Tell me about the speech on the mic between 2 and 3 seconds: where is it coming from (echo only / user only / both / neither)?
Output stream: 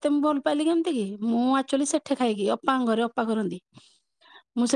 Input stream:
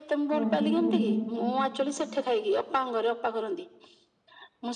echo only